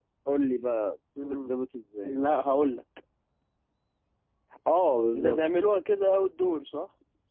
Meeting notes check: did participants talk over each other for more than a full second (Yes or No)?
No